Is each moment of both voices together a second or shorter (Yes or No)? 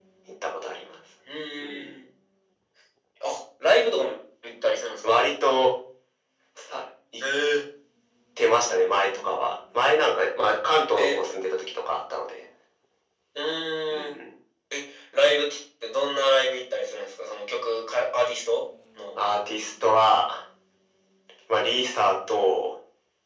Yes